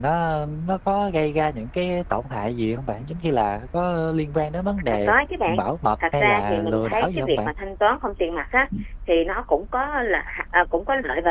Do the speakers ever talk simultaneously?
Yes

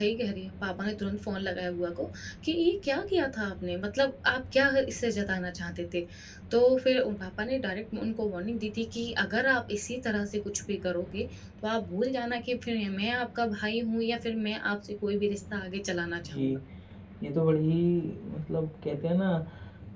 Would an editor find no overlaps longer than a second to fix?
Yes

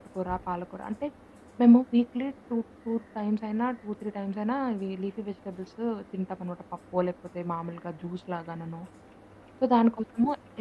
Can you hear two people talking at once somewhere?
No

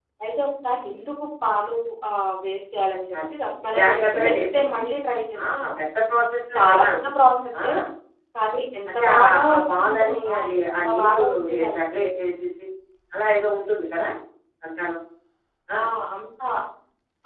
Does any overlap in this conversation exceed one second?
Yes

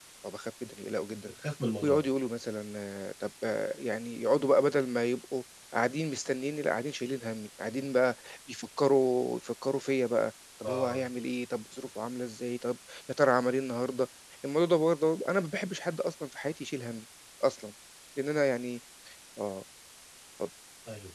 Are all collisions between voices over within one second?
Yes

